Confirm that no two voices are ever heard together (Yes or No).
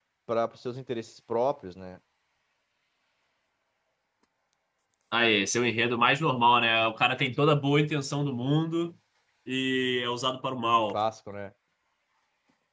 Yes